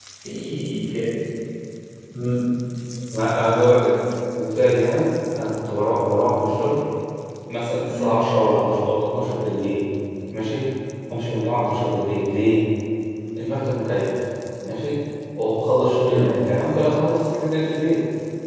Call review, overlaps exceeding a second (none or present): none